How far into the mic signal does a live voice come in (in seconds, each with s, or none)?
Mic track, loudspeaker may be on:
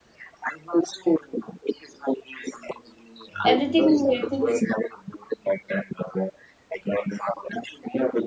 3.4 s